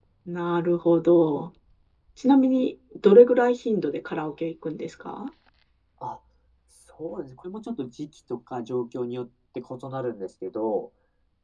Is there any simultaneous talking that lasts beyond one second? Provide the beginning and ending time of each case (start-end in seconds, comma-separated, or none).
none